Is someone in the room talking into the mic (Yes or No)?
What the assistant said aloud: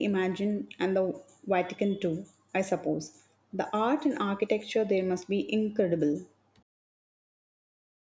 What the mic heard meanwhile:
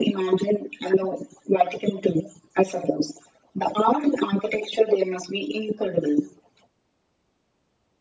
No